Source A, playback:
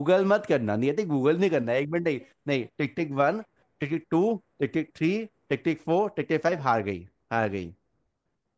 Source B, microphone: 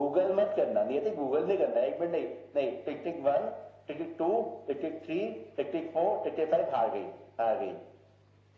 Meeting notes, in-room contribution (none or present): none